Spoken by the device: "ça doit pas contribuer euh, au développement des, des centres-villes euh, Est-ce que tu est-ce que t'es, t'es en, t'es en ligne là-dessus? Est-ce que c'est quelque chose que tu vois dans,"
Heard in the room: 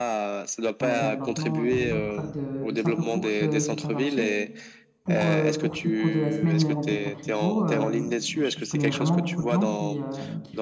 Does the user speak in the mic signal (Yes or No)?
Yes